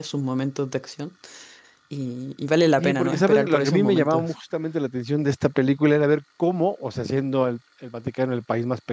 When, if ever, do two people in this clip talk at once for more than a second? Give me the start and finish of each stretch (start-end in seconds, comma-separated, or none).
2.8-4.3